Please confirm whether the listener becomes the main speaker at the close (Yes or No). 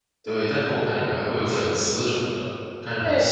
Yes